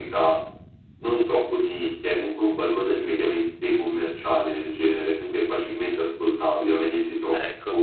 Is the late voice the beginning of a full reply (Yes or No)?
No